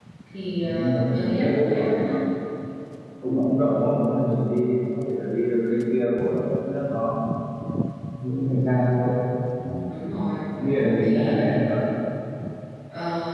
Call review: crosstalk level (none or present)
present